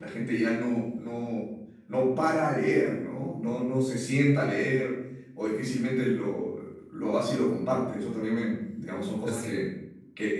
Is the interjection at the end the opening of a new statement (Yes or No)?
No